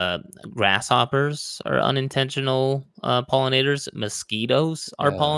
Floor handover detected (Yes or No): No